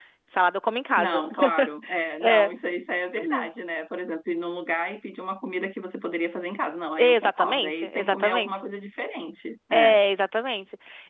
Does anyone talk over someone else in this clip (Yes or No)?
Yes